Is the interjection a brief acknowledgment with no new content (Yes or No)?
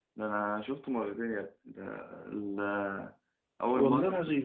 Yes